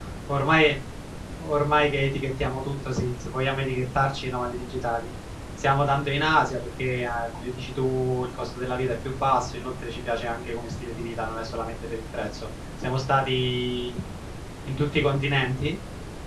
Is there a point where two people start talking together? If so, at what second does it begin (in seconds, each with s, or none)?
none